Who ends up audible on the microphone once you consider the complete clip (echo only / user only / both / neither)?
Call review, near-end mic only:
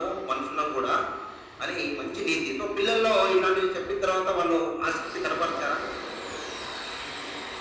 echo only